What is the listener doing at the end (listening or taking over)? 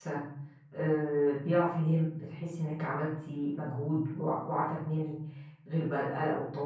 listening